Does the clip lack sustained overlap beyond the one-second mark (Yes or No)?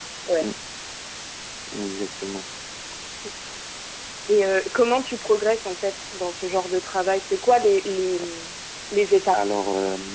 Yes